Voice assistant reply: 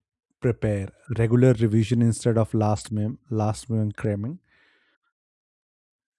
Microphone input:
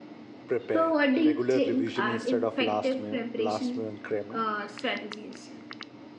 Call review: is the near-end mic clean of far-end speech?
No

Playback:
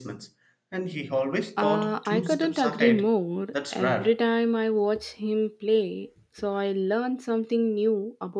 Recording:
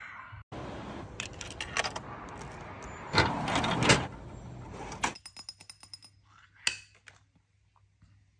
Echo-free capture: Yes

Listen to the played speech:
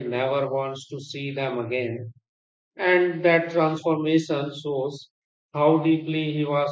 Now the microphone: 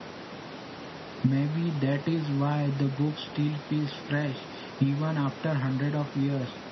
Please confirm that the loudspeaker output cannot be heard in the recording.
Yes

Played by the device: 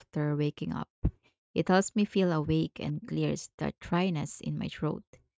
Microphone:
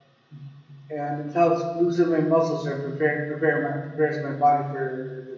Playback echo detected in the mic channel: No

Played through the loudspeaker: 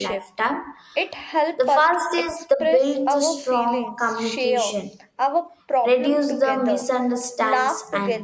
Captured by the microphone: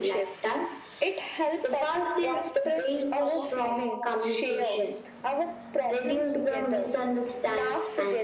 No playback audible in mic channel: No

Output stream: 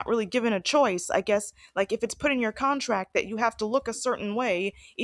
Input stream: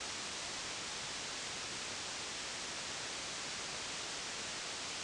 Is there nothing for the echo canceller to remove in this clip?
Yes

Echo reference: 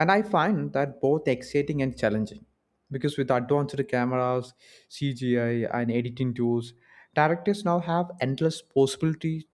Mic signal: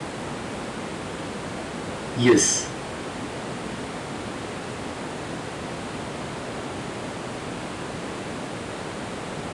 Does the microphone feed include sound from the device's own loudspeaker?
No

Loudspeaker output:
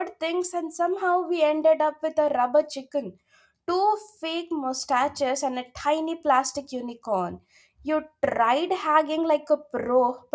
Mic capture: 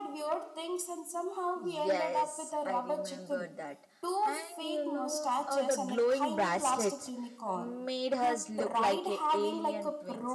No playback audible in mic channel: No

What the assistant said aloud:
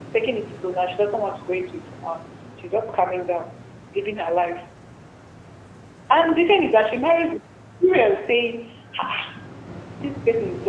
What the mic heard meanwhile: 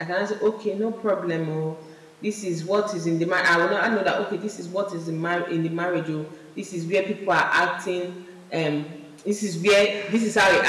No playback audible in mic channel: Yes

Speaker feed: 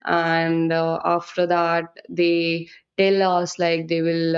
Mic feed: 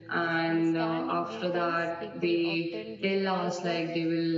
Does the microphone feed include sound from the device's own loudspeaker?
Yes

